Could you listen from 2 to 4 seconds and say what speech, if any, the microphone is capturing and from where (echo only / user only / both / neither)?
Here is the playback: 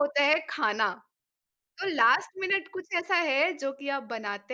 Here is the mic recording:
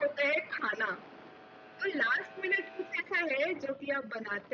echo only